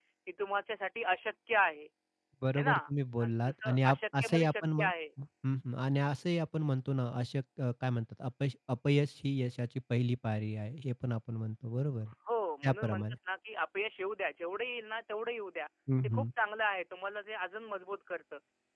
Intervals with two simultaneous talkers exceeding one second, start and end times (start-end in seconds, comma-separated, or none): 3.2-4.9